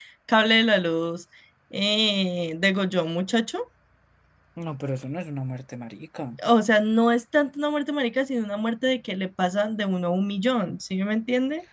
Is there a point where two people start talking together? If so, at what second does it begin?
none

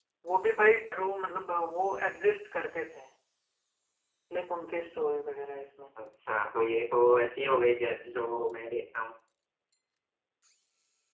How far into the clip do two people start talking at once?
none

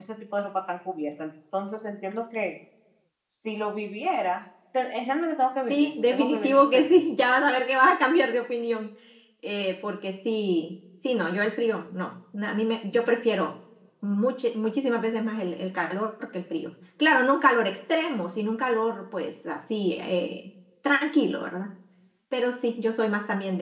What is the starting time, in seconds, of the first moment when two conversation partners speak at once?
5.7 s

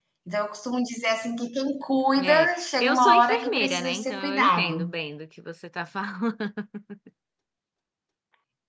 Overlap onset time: 2.2 s

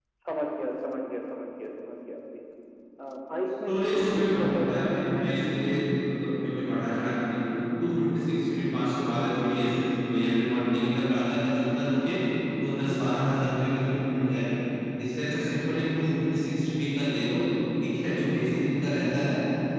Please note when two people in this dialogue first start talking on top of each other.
3.7 s

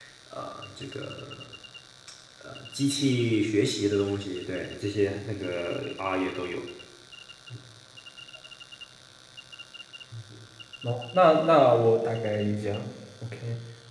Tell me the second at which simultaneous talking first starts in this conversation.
none

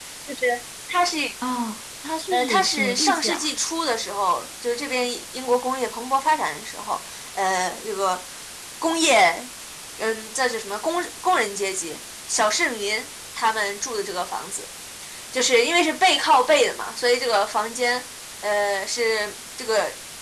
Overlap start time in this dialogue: 2.3 s

